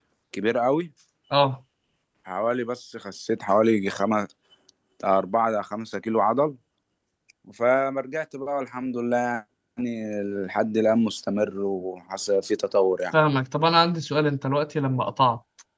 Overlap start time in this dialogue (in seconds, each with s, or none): none